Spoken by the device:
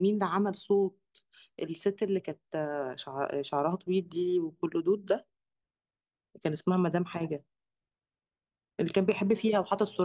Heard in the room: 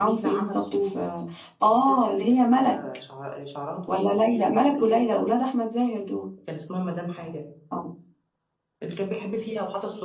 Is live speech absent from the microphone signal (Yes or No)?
No